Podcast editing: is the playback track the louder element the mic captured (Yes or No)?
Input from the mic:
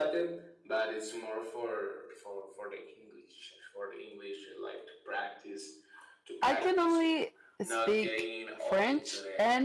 No